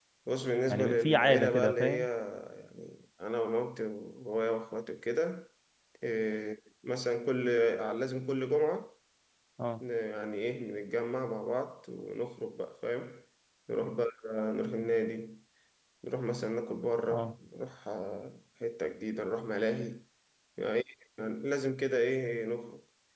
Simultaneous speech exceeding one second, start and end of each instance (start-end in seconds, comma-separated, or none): 0.7-2.0